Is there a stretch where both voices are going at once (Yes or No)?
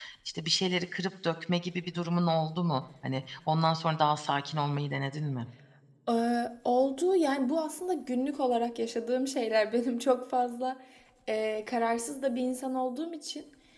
No